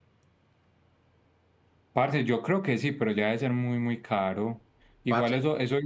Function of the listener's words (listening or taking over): listening